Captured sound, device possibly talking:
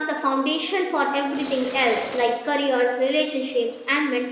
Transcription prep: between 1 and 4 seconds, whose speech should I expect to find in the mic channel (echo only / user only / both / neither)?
echo only